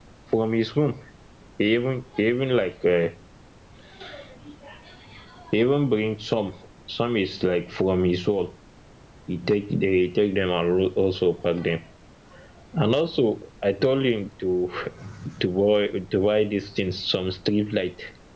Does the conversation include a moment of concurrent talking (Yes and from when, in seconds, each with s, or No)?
No